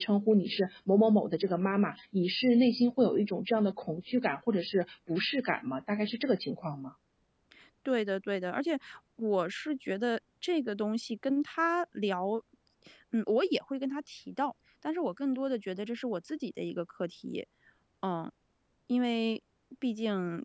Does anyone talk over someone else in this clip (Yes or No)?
No